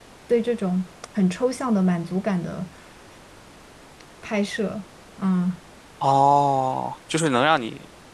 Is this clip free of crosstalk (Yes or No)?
Yes